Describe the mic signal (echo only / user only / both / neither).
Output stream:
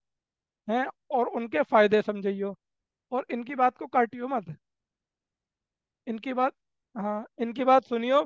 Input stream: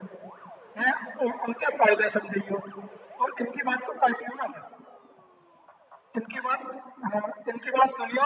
echo only